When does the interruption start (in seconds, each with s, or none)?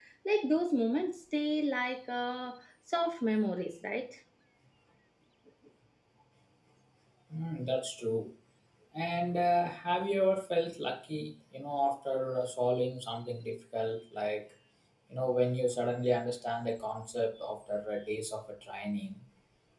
none